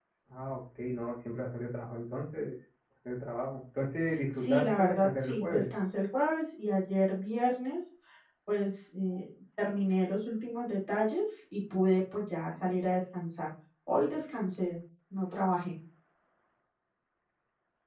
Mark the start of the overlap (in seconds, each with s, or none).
4.3 s